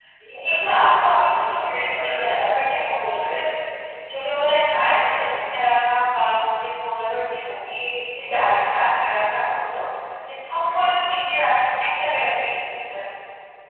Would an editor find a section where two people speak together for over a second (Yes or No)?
Yes